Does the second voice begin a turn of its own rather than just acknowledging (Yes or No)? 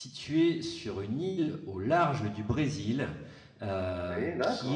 No